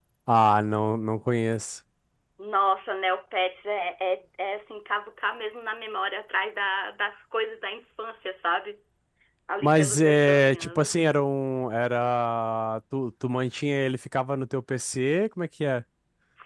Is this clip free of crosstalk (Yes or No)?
No